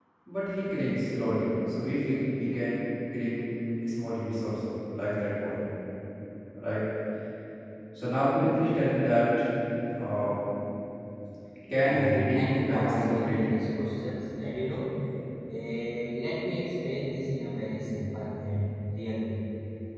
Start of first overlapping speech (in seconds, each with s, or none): 11.8 s